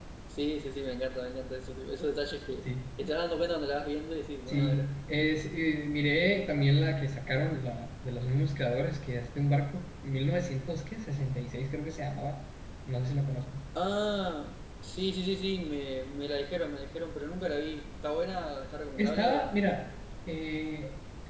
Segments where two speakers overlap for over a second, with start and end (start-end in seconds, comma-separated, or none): none